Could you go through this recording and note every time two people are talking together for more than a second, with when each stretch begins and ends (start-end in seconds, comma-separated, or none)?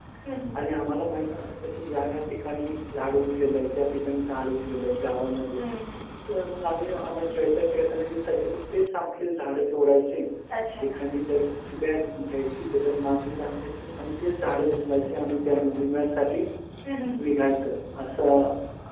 none